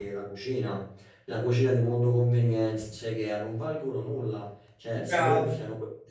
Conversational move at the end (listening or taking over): listening